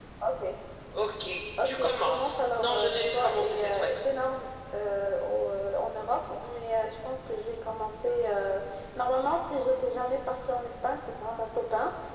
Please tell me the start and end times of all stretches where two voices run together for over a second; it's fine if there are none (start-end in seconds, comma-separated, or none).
1.6-4.0